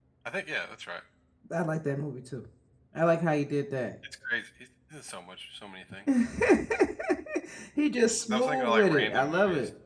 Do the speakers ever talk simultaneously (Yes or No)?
Yes